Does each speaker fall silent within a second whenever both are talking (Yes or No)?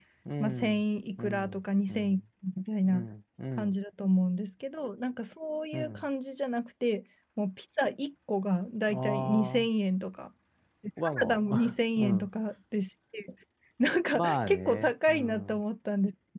No